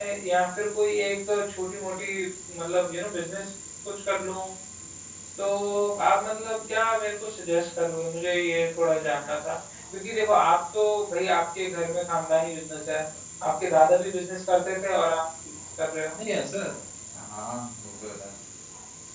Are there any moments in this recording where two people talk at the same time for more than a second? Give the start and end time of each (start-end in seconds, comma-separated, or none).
none